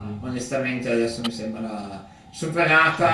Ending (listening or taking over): listening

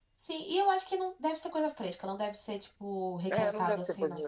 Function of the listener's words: taking over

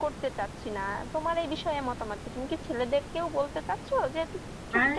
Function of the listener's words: taking over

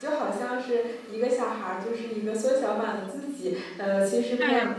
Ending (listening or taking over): listening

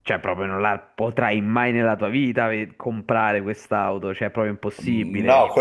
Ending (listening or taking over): taking over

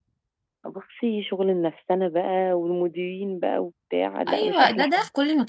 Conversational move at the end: taking over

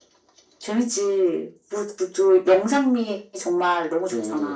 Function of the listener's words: taking over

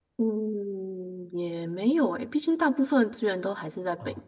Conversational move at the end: taking over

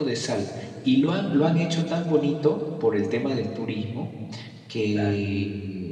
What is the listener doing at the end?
listening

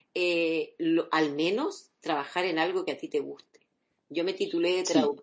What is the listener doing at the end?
listening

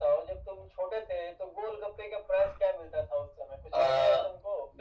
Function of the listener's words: taking over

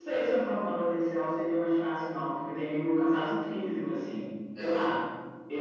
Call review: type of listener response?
listening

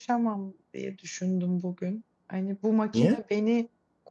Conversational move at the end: listening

